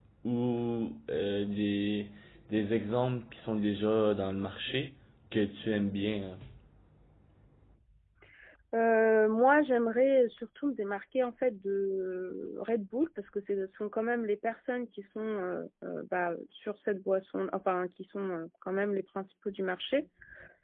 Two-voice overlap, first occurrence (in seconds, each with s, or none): none